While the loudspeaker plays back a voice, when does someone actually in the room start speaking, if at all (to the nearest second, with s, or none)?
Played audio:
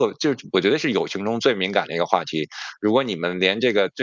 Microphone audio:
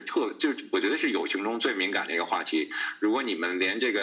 none